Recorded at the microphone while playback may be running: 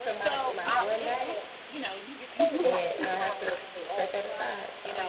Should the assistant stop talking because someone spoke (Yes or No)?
Yes